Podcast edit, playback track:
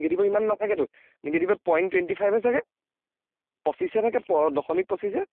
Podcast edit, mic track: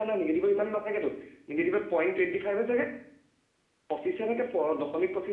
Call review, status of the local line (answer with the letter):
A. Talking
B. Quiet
B